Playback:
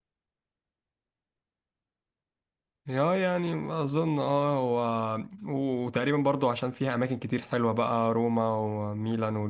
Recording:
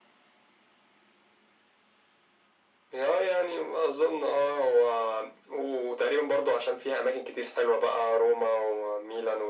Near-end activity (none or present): none